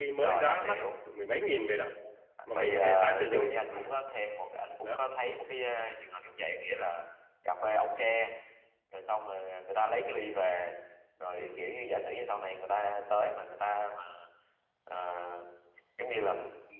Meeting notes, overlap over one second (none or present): present